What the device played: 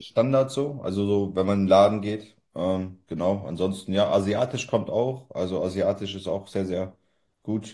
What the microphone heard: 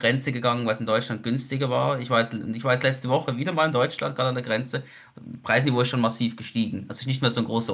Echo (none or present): none